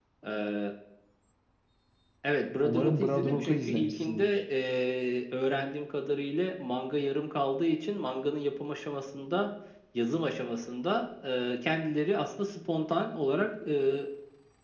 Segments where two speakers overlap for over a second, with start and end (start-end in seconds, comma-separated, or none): 2.6-4.4